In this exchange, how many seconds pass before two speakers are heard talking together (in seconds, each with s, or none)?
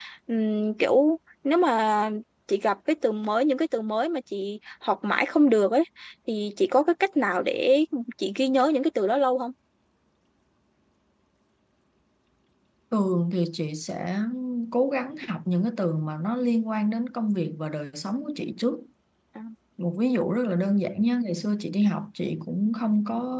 none